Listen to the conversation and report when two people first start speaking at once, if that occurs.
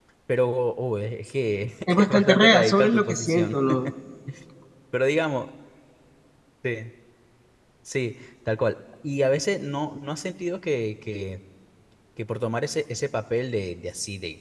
2 s

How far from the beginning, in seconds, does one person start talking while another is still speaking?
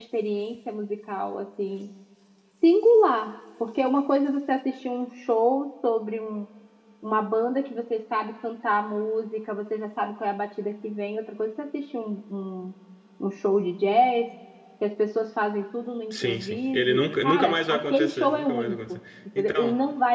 16 s

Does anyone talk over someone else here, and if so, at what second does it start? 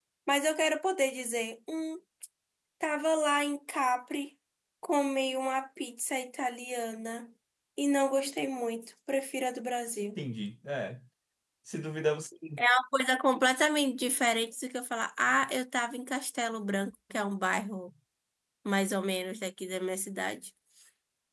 none

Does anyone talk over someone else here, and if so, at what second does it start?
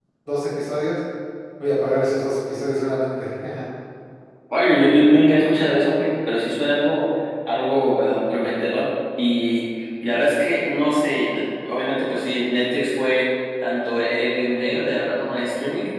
none

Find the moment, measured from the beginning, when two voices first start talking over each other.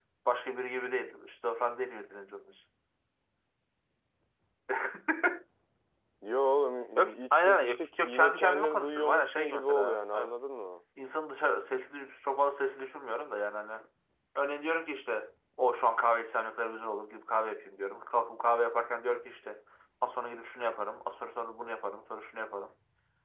7 s

